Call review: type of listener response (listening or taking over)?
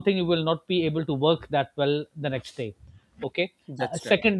listening